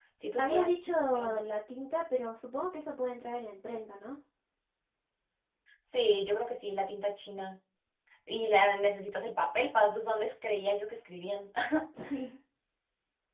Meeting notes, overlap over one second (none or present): none